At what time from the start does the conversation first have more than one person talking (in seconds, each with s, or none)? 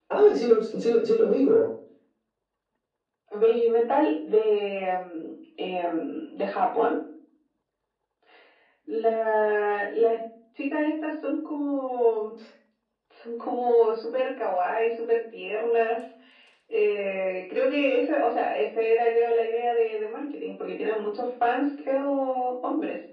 none